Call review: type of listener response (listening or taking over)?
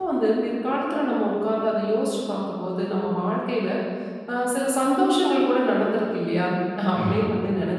listening